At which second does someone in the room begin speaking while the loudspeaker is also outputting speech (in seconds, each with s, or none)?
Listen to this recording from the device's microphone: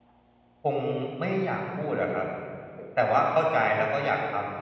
0.6 s